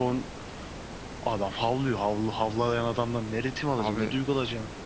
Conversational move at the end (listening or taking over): listening